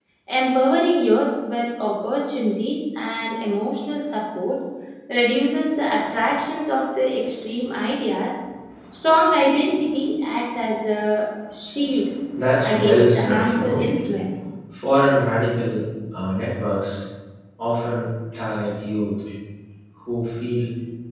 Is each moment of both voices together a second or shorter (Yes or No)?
No